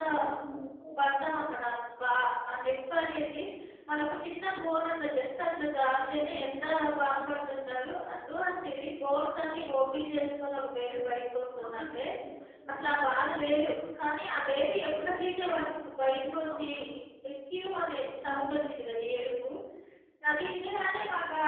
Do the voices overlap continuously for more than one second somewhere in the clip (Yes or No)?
No